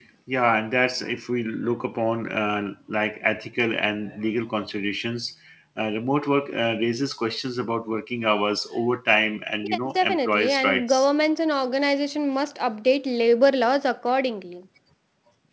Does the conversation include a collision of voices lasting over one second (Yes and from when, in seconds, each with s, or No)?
Yes, from 9.6 s